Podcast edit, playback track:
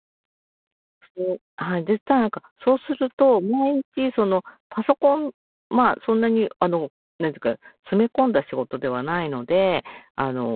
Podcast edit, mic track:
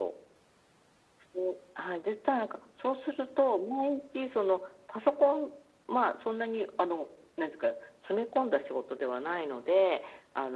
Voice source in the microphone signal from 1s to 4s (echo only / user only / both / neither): echo only